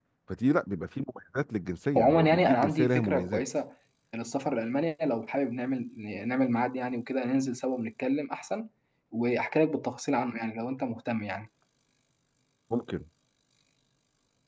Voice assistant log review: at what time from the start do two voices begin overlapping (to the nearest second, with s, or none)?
2 s